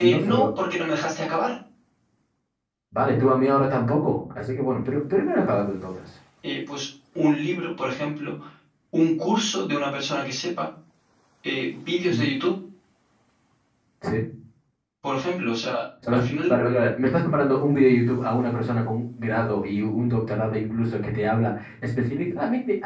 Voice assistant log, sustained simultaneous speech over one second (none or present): none